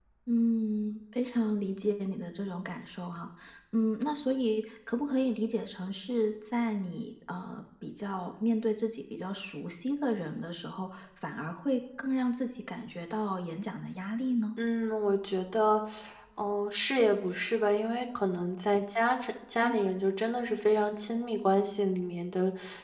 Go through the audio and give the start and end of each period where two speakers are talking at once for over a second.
none

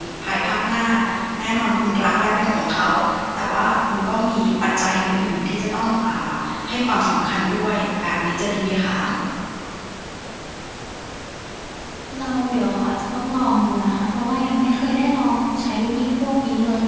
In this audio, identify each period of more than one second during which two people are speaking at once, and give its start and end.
none

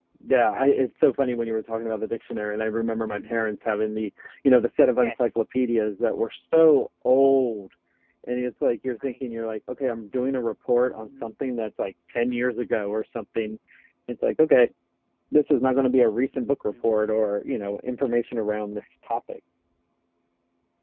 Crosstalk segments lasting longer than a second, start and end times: none

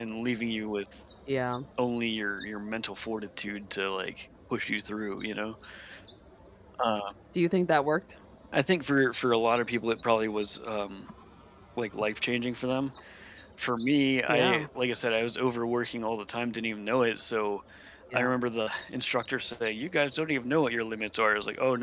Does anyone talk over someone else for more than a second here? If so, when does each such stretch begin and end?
none

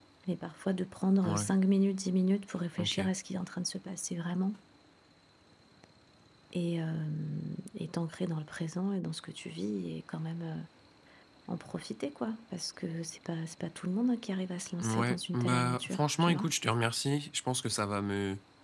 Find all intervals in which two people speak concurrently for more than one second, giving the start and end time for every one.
14.8-16.5

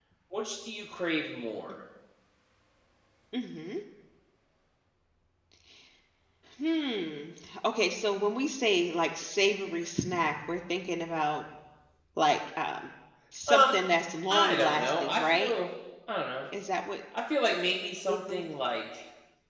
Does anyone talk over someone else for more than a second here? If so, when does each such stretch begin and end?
14.3-15.5

